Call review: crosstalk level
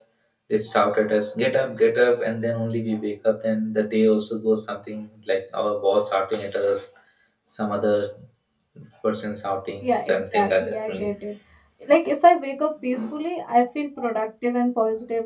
present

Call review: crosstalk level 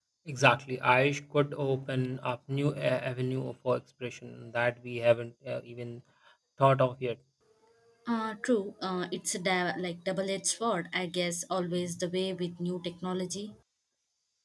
none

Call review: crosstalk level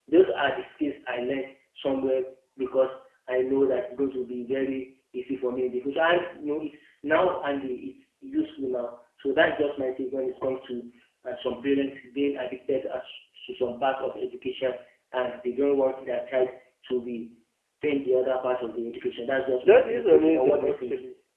present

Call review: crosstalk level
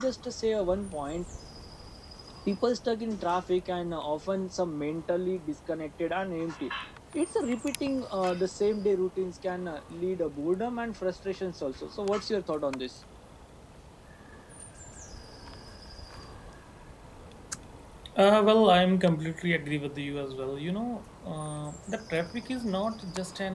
none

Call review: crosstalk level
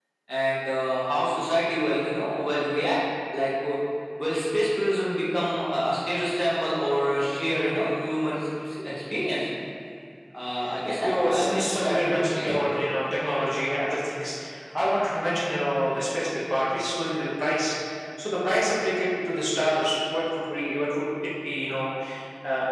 present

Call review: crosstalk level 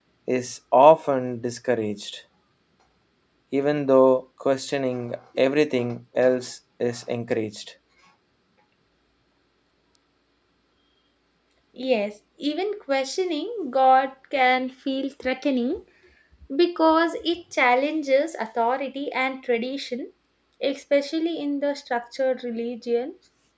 none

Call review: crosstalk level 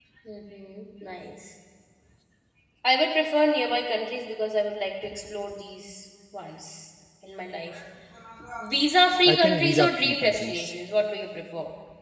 present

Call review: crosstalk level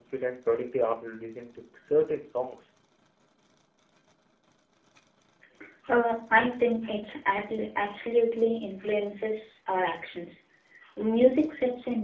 none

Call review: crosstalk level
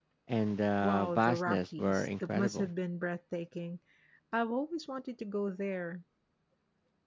present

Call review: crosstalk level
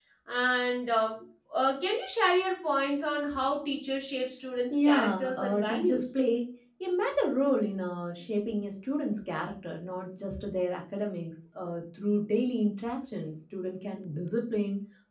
present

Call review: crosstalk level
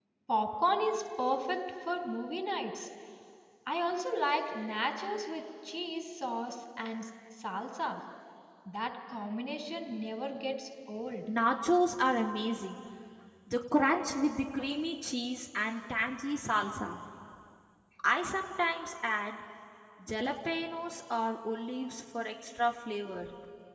none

